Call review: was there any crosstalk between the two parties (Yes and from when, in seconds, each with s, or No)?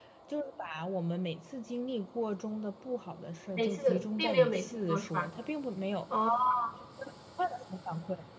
Yes, from 3.6 s